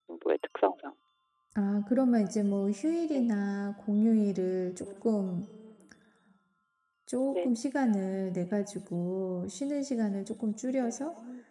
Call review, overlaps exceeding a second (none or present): none